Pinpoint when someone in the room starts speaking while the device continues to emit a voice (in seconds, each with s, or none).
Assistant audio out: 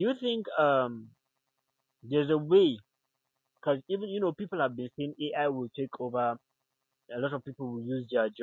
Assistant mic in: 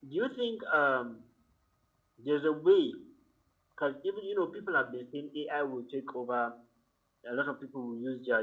none